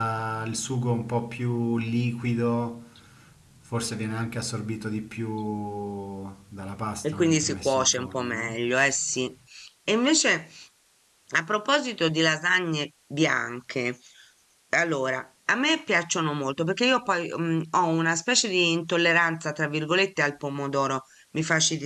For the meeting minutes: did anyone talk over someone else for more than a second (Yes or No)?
Yes